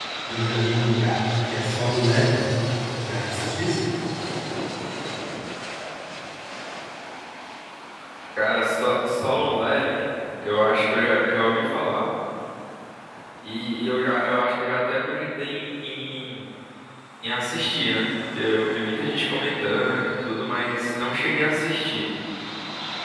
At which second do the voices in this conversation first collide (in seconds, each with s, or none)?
none